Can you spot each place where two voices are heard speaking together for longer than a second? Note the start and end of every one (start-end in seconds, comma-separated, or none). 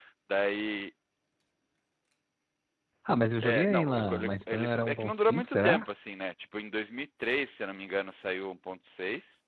3.4-5.8